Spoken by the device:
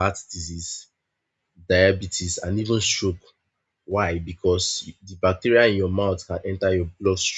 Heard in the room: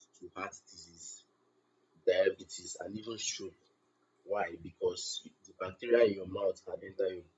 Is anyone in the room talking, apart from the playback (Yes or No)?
No